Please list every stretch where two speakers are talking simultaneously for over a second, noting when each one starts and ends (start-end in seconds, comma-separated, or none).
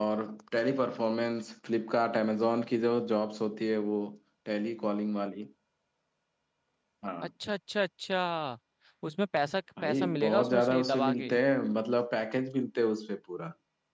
9.8-11.3